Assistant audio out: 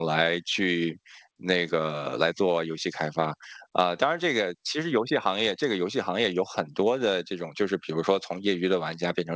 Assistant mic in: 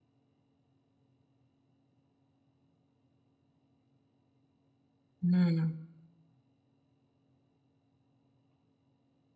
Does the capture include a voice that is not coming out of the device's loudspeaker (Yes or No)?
Yes